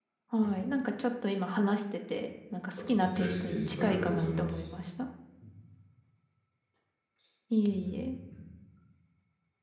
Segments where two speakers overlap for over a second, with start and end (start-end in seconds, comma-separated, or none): 3.0-4.7